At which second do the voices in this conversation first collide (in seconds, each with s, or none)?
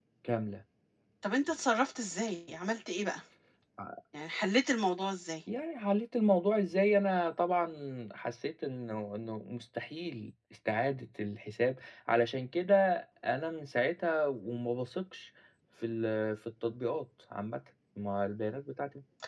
none